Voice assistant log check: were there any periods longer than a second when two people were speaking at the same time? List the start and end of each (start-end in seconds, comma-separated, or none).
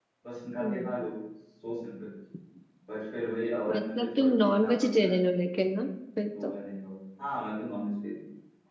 3.7-5.2